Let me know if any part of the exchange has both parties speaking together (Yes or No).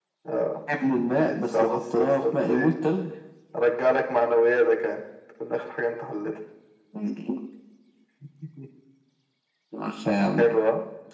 Yes